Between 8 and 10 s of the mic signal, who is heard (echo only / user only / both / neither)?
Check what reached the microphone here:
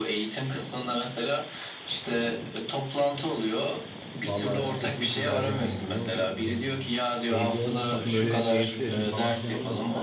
both